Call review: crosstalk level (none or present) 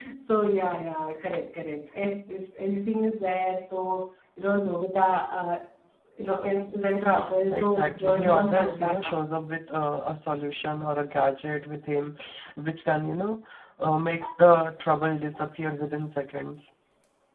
present